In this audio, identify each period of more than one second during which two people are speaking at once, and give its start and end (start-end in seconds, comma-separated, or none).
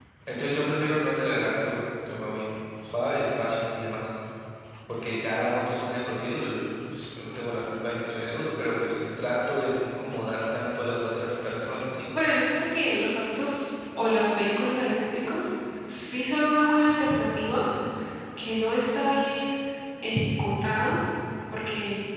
none